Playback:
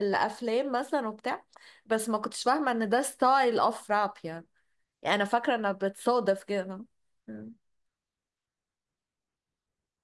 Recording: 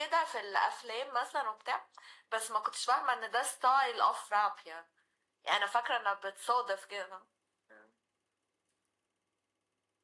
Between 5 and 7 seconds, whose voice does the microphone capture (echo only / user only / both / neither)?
echo only